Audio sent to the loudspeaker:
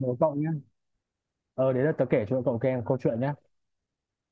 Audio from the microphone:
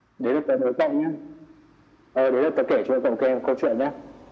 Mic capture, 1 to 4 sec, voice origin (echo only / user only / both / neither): echo only